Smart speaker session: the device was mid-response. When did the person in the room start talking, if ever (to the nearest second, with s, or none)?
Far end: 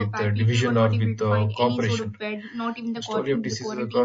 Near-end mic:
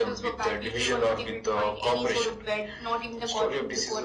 none